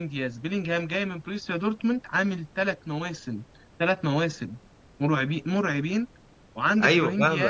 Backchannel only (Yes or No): No